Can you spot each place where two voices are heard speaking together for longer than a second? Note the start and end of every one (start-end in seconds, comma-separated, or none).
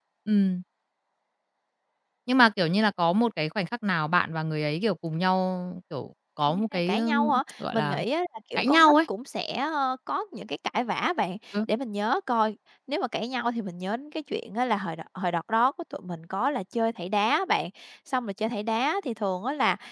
6.7-8.0